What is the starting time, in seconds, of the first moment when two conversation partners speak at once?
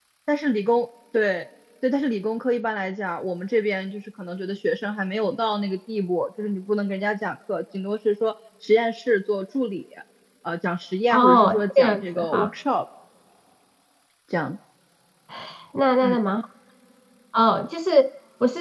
11.1 s

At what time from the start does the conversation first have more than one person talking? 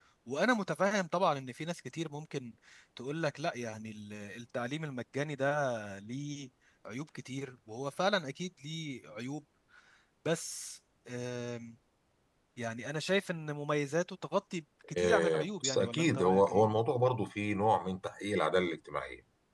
15.0 s

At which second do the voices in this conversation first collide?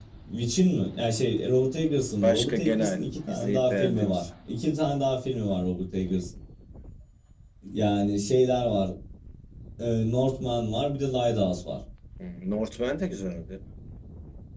2.2 s

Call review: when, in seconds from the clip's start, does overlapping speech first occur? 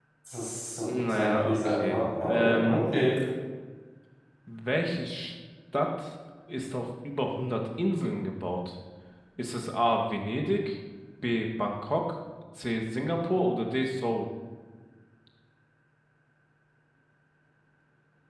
0.8 s

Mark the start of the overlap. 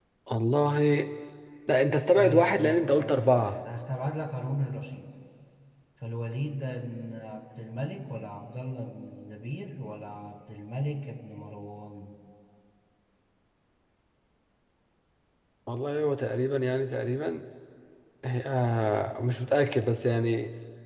2.2 s

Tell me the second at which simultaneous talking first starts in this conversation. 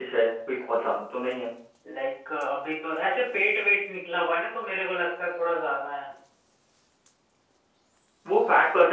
none

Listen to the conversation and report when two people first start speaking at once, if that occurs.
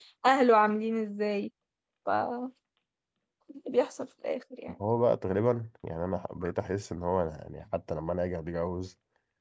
none

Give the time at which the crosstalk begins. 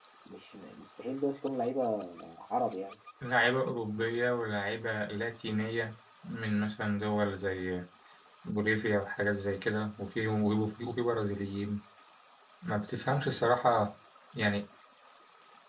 none

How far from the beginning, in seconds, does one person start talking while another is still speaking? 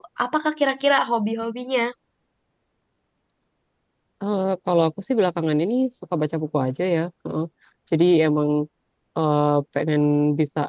none

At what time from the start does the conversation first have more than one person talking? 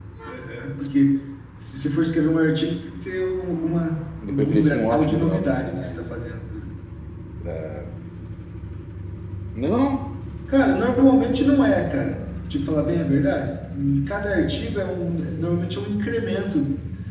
4.2 s

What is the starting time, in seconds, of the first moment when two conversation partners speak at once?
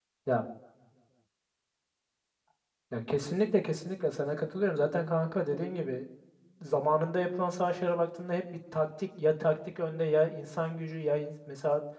none

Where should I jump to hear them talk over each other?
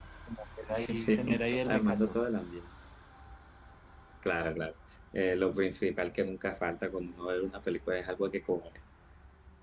0.7 s

